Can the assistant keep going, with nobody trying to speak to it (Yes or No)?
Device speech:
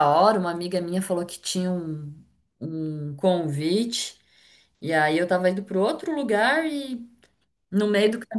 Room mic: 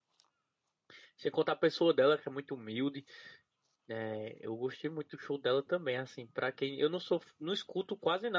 No